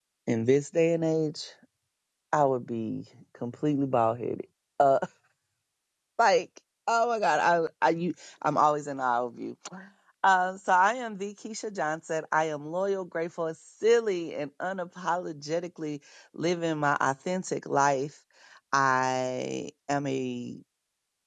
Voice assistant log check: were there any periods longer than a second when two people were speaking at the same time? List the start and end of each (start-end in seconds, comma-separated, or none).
none